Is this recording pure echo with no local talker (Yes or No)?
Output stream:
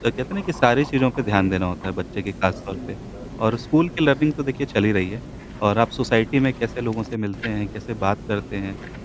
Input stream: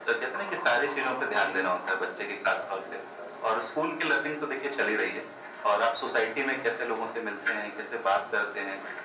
Yes